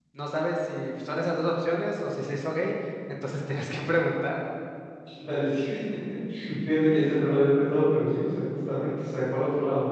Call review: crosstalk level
none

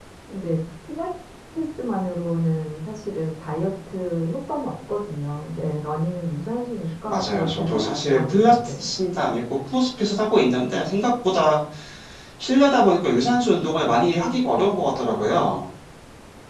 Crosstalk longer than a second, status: present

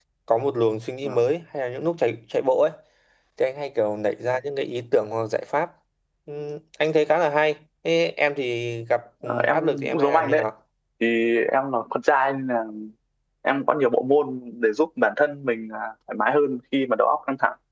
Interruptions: present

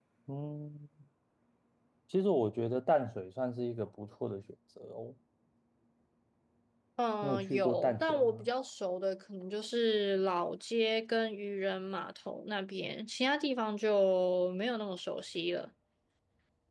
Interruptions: present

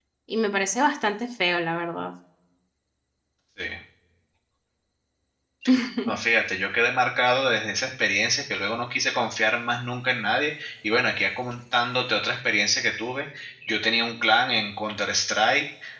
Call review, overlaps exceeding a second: none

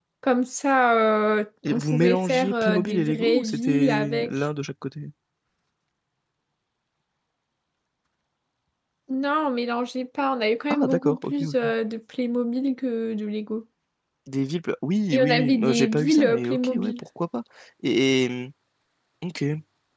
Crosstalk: present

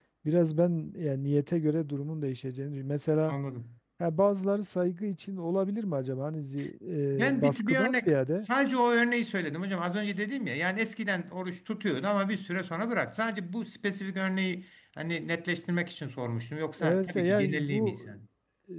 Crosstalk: present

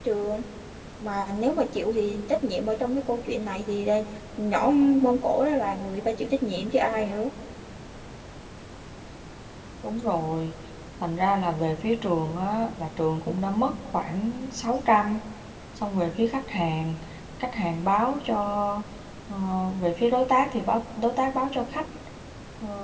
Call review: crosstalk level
none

